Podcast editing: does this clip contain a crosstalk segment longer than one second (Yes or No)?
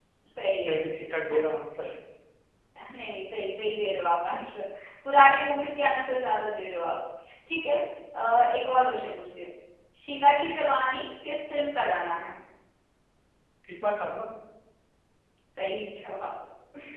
No